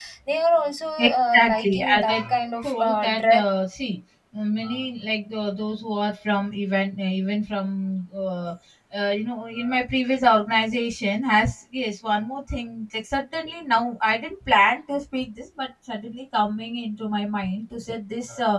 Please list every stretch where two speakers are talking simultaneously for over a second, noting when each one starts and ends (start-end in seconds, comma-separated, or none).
1.0-3.4